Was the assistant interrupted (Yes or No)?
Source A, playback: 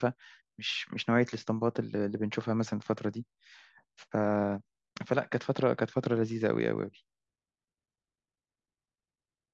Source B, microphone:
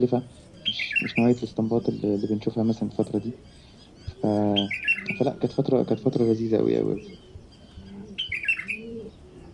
No